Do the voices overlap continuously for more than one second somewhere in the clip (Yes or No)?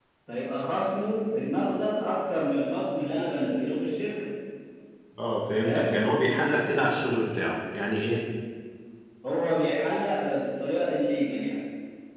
No